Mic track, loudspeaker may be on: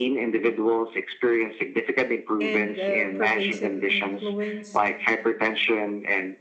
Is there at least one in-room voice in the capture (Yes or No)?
Yes